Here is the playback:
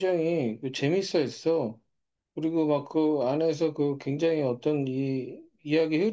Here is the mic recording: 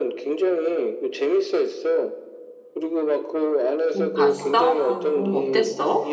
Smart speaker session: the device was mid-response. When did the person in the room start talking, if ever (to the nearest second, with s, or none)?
4 s